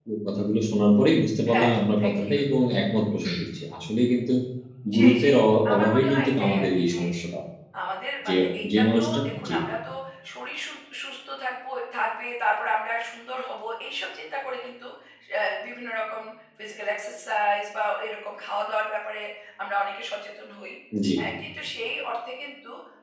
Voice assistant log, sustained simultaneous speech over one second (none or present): present